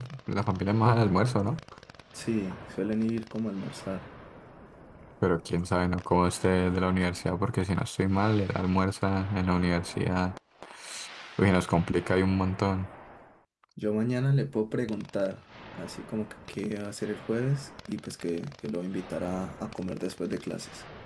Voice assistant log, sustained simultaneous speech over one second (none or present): none